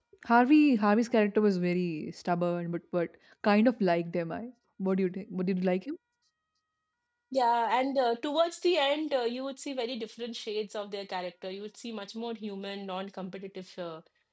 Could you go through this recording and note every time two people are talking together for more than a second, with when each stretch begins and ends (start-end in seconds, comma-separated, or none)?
none